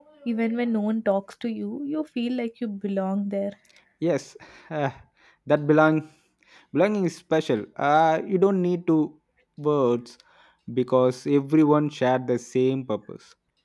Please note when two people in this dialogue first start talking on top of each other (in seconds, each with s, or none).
none